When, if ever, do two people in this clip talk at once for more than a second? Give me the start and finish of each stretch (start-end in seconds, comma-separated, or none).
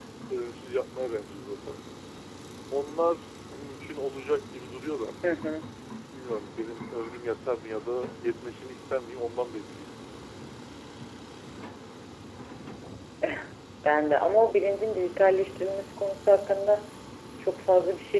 none